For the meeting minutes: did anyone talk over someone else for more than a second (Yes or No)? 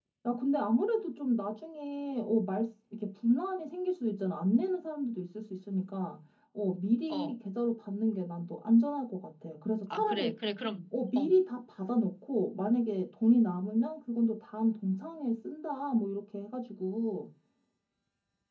No